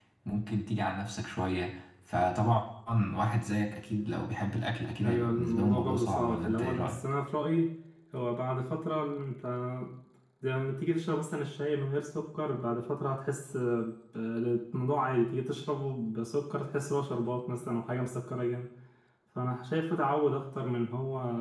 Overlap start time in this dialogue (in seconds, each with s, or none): 5.0 s